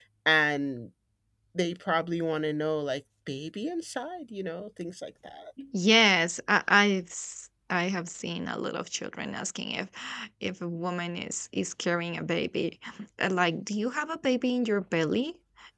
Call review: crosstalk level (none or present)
none